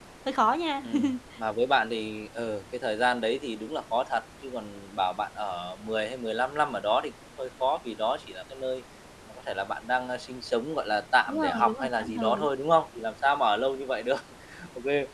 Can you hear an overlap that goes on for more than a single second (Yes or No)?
Yes